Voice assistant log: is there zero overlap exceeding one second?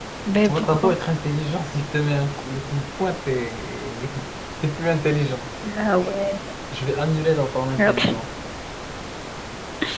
Yes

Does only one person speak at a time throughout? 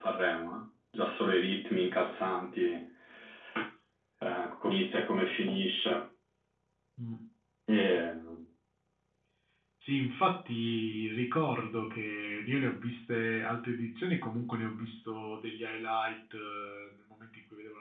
Yes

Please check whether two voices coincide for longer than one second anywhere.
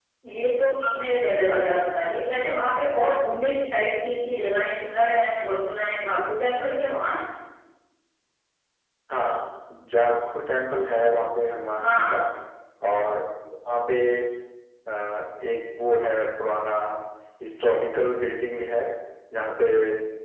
No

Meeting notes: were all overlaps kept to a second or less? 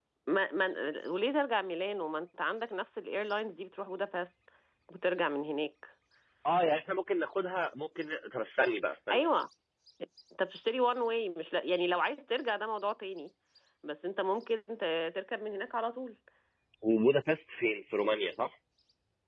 Yes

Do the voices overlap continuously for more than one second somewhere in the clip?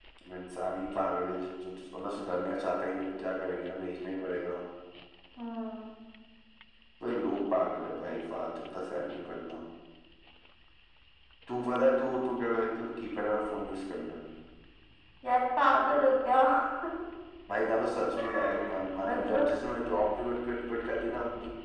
No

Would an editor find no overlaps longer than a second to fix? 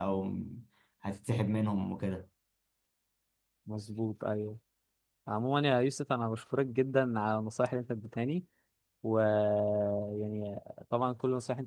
Yes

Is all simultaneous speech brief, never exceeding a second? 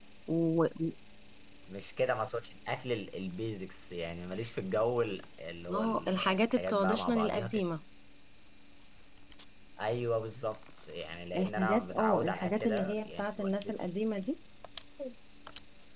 No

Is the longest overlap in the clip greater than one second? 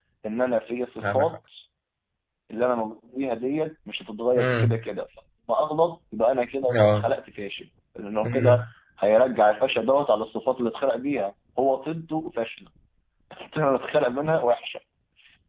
No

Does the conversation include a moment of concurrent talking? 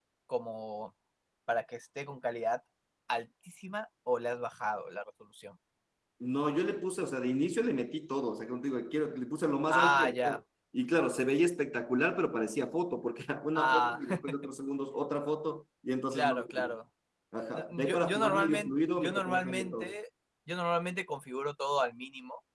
Yes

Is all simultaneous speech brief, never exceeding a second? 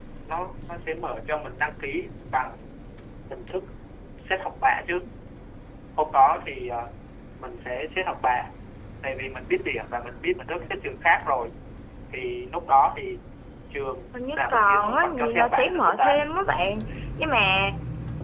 No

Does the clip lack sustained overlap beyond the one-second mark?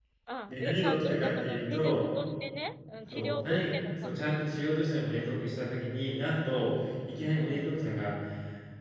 No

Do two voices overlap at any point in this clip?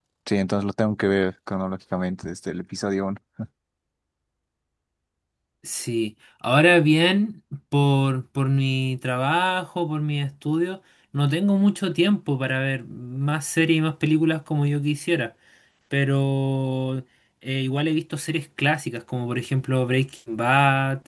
No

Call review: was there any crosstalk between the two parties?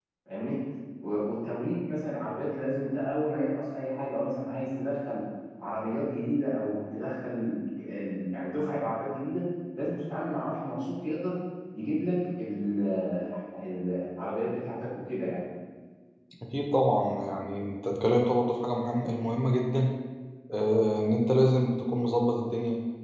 No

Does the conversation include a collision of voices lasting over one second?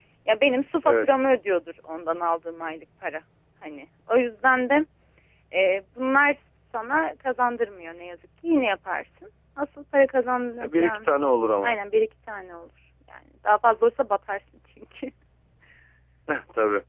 No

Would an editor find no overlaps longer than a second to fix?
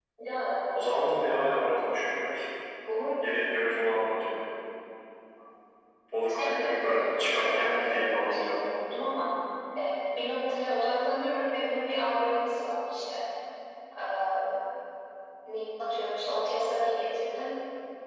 No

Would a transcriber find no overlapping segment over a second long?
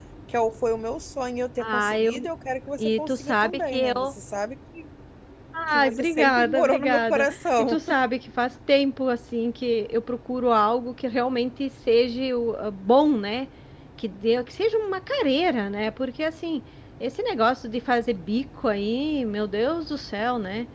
No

